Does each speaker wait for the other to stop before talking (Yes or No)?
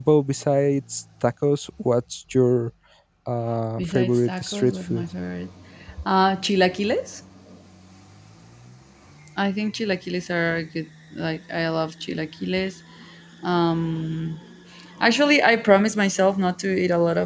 No